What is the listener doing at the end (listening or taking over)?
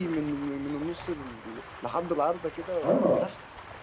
taking over